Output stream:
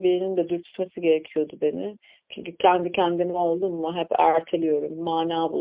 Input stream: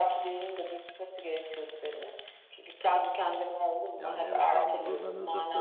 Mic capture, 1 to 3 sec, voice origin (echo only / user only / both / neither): echo only